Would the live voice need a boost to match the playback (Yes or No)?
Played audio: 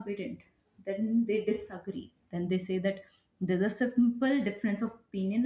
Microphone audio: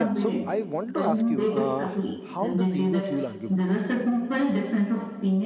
Yes